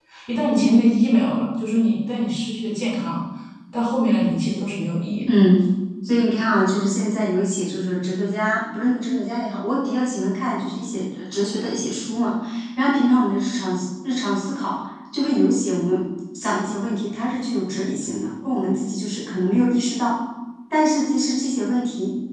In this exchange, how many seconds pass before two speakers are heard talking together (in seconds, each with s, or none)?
none